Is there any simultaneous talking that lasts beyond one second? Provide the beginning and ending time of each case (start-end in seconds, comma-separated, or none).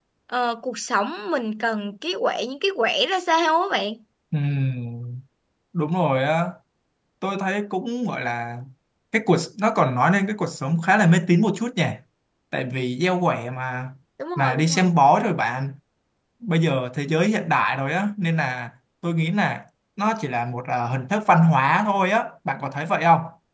none